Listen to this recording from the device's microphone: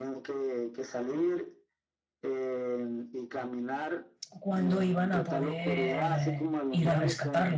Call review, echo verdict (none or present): present